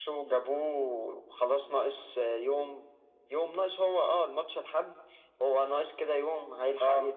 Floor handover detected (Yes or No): No